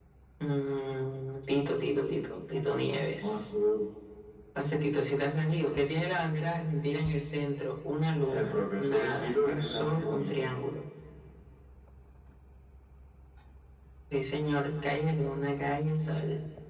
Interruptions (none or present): present